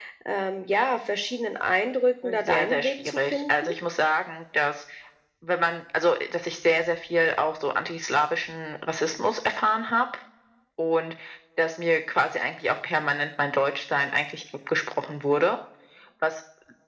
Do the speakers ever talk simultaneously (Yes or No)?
Yes